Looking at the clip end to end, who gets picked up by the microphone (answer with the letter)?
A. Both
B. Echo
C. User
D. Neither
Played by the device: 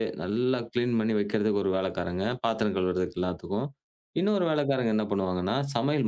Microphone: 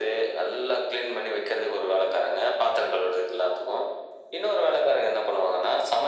B